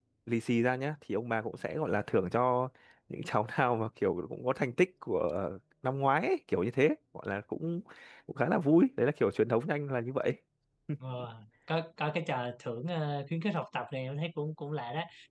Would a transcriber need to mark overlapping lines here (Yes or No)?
No